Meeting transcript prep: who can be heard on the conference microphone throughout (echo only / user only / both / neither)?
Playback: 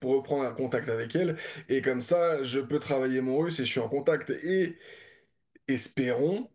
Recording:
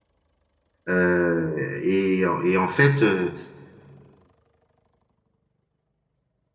user only